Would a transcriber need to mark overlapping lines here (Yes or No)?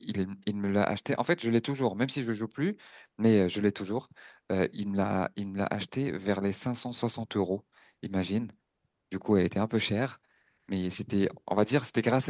No